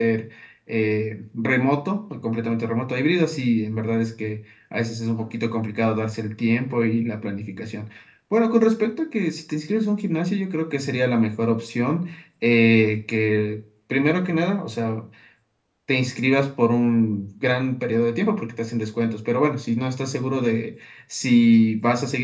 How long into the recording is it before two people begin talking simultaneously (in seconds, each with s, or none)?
none